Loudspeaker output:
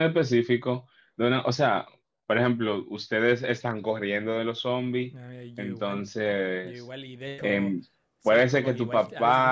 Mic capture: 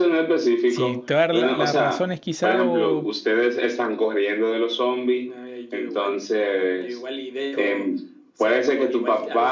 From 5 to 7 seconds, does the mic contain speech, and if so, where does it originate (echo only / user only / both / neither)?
echo only